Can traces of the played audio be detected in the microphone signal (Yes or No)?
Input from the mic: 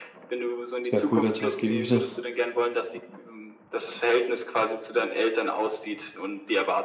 Yes